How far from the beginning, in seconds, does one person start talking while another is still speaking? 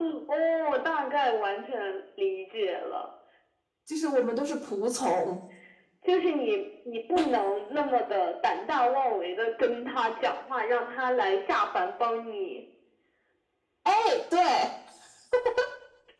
none

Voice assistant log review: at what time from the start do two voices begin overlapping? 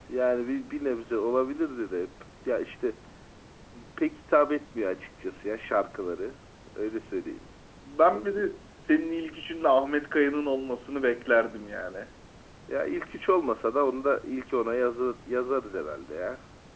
none

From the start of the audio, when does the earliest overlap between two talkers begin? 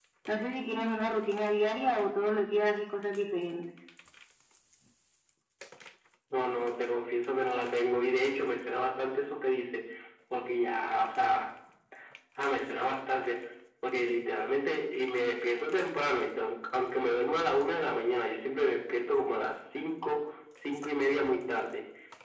none

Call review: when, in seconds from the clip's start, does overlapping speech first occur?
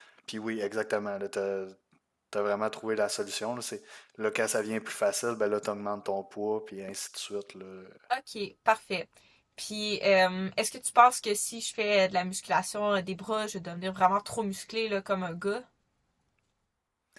none

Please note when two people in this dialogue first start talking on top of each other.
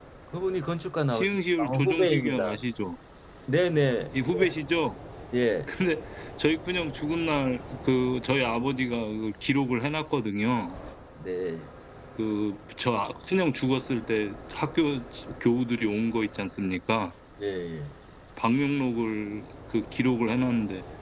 1.1 s

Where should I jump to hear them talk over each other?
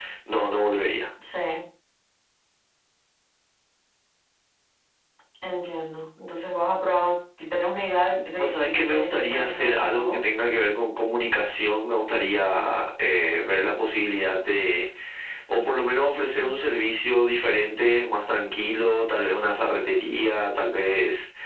8.3 s

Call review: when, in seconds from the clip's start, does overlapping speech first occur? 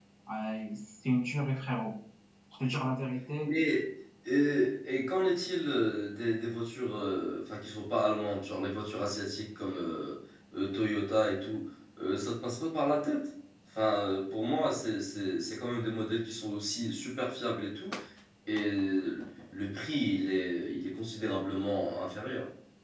none

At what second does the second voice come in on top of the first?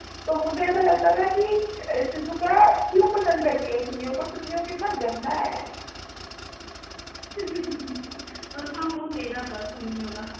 none

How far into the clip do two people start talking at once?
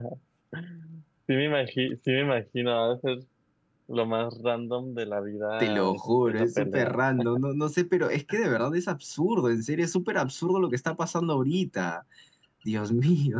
5.6 s

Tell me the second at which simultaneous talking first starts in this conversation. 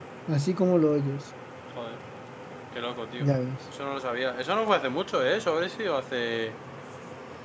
none

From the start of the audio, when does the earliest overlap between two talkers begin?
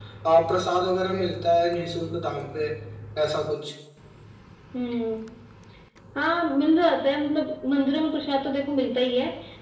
none

